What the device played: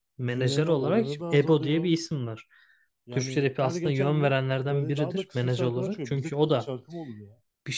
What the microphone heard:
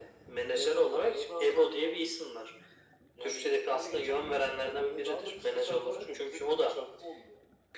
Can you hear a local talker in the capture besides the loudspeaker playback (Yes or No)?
No